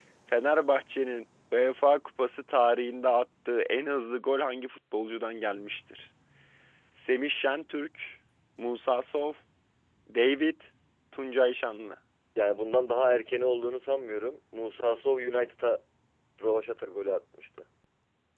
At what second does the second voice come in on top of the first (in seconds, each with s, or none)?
none